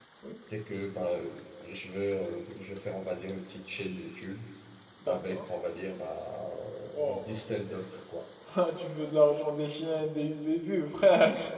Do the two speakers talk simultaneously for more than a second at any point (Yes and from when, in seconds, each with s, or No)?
No